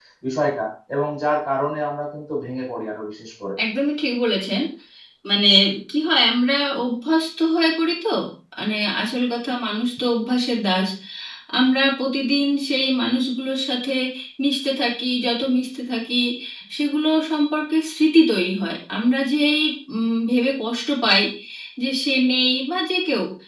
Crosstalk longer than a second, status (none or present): none